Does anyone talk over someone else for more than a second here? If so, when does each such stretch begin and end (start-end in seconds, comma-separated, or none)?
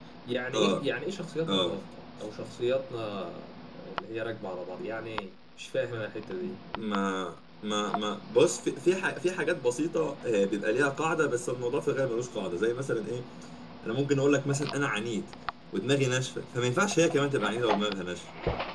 none